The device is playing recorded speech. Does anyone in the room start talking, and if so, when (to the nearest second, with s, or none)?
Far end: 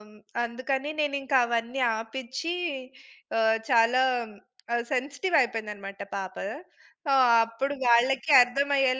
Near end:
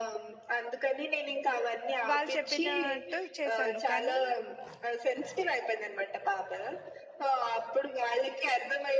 2 s